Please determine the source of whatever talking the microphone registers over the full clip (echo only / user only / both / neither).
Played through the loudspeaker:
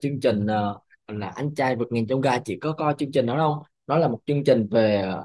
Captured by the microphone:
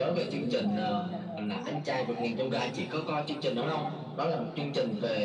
both